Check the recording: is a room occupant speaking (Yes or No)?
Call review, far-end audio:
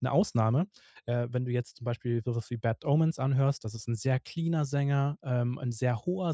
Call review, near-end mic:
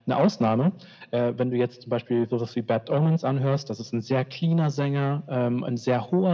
No